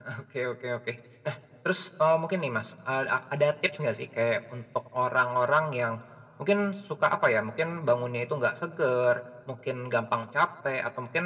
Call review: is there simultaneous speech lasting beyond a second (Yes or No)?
No